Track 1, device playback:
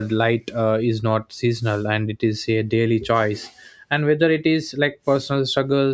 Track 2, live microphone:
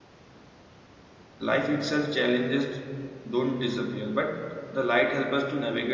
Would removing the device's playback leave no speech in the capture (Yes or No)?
No